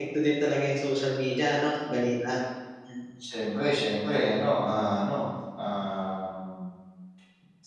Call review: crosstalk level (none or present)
none